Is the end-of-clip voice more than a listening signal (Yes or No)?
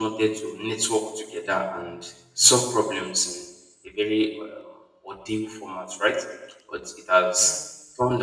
No